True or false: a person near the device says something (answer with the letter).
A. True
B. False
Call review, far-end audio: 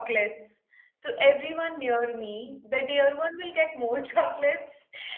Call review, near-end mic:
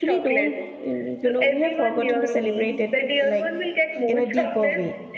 A